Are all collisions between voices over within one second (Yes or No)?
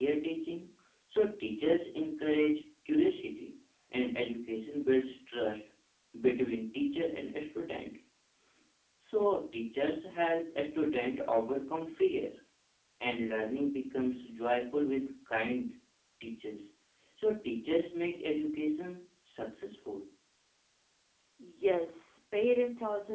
Yes